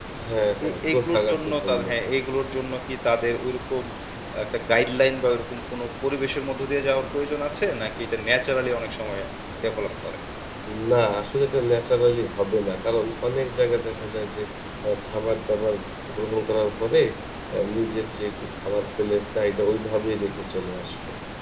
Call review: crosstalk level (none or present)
present